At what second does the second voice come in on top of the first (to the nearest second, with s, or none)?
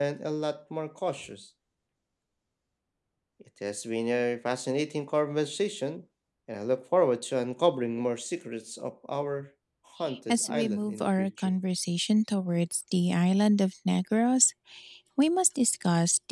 10 s